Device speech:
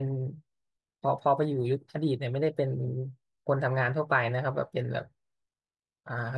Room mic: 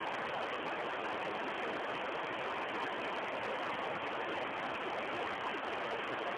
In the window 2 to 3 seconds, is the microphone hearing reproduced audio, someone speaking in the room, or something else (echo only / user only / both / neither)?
neither